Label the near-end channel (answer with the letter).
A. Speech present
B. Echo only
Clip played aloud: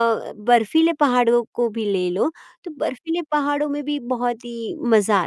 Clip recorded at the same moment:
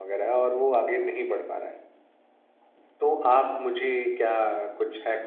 A